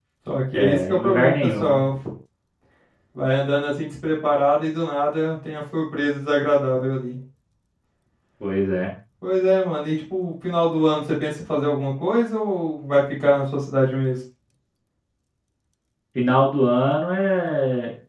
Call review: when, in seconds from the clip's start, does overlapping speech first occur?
0.5 s

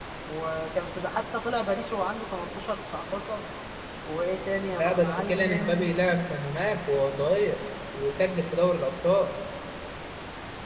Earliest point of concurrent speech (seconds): 4.7 s

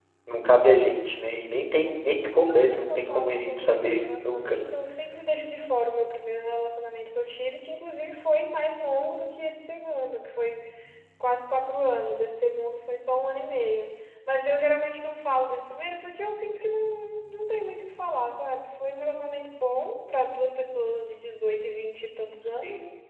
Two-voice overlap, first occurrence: 2.3 s

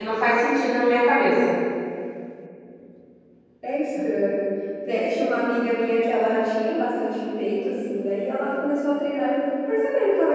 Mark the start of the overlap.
none

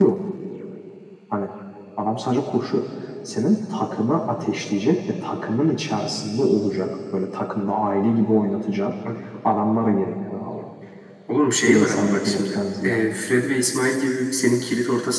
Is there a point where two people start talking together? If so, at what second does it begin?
11.7 s

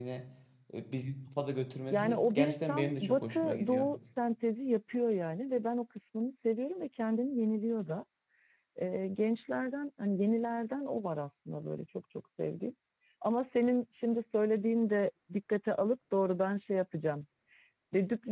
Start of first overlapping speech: 1.9 s

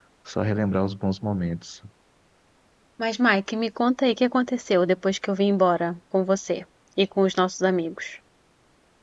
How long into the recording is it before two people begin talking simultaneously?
none

